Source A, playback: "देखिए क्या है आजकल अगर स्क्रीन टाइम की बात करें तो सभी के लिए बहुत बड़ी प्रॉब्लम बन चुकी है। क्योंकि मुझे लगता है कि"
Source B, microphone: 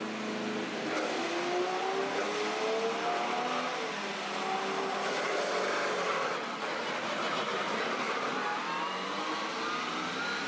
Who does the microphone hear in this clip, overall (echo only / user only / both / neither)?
neither